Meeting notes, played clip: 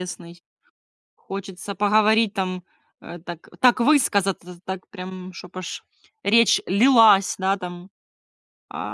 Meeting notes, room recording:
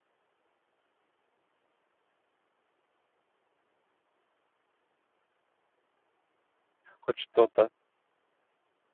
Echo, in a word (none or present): none